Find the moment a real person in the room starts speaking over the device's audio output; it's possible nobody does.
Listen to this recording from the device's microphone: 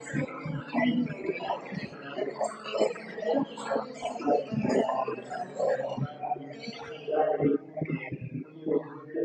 none

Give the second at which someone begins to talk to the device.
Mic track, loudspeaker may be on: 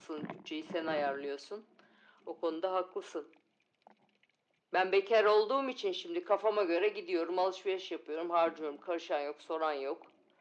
none

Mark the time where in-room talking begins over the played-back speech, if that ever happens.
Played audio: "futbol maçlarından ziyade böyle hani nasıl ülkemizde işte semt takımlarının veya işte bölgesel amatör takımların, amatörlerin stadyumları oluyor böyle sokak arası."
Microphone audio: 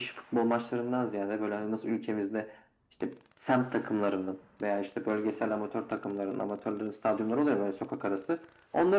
none

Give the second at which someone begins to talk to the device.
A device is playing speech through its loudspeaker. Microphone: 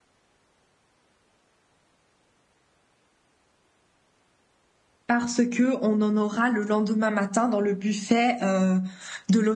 5.1 s

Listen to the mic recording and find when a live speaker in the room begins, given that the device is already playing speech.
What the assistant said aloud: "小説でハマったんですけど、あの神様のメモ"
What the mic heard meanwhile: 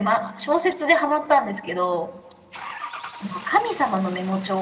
none

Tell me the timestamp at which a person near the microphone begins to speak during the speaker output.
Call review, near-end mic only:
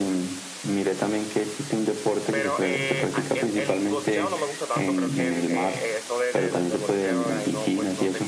2.3 s

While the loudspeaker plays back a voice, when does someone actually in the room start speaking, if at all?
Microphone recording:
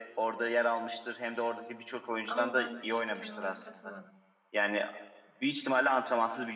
2.2 s

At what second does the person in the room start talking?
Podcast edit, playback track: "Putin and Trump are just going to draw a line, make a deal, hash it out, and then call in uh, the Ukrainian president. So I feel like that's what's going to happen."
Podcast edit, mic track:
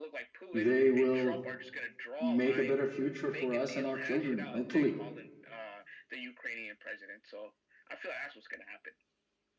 0.5 s

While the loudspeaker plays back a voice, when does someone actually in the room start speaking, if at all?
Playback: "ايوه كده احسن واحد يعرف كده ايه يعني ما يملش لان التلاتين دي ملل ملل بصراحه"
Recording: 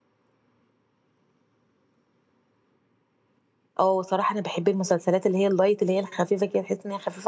3.8 s

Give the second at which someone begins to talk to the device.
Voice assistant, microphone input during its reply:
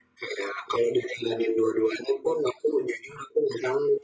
none

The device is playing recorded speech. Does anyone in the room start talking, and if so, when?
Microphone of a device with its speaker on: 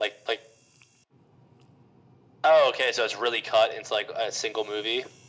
none

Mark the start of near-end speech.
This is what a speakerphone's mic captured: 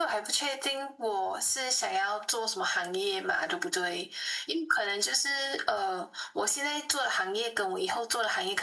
none

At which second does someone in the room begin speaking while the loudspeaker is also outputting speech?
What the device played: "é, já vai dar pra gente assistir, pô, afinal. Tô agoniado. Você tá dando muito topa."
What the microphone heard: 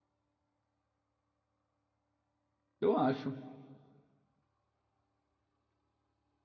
2.8 s

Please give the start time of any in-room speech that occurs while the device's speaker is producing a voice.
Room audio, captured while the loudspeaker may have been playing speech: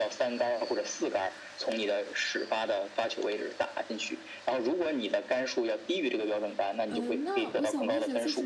6.9 s

